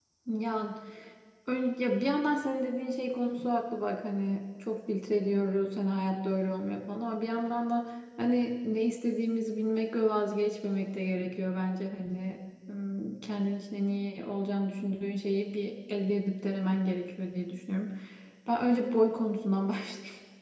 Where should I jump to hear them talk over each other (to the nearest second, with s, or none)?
none